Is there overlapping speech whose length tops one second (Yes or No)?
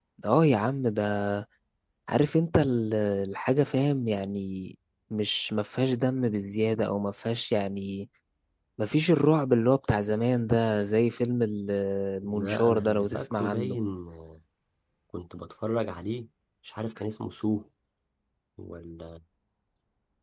Yes